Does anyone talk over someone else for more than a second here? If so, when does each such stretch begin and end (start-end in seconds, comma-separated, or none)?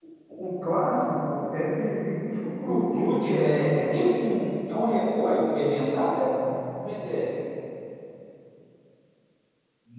2.7-4.1